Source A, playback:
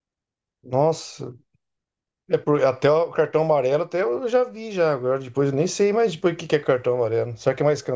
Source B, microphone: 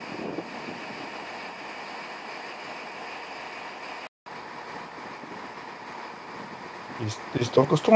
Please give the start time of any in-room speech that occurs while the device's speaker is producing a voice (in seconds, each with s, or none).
7.0 s